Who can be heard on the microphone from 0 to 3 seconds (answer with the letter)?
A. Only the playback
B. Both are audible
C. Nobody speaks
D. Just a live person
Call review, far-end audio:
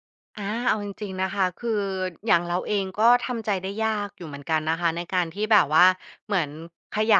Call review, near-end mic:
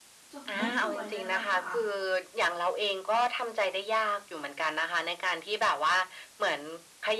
B